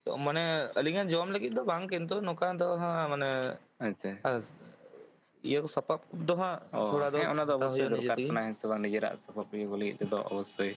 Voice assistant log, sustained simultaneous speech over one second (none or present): present